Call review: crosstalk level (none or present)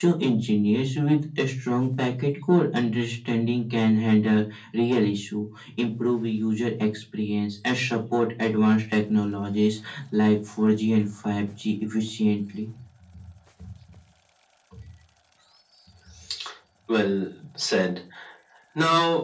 none